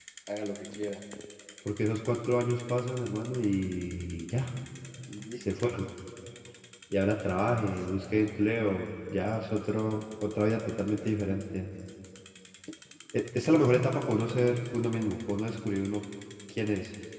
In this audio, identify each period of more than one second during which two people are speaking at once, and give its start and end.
none

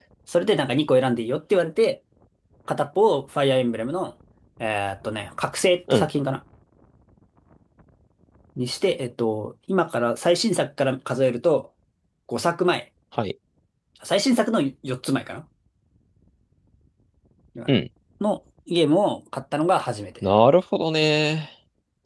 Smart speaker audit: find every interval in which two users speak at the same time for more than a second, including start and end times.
none

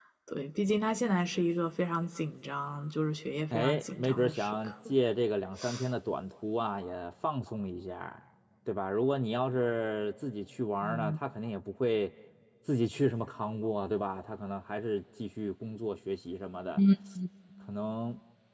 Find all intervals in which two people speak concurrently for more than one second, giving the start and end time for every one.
3.5-4.7

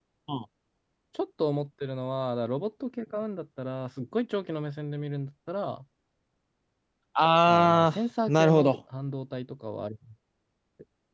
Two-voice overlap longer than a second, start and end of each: 7.5-8.7

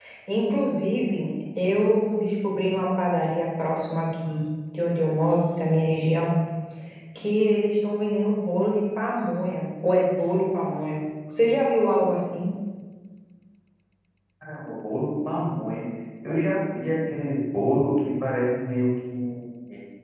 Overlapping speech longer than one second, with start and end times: none

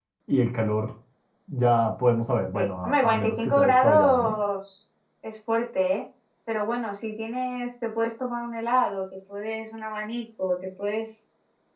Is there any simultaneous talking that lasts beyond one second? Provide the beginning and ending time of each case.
2.5-4.4

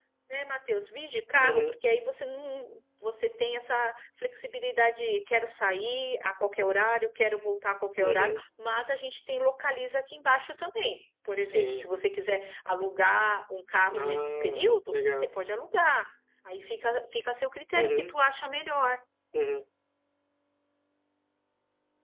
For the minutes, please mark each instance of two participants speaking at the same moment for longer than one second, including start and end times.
14.0-15.4

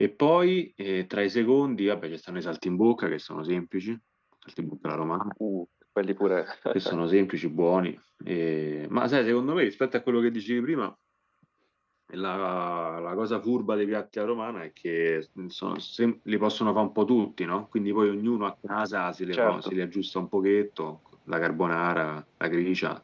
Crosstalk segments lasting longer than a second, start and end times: none

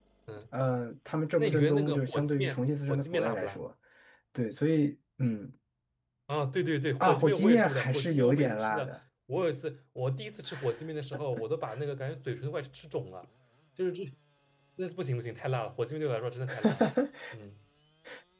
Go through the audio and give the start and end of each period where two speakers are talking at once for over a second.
1.4-3.6, 7.0-9.0

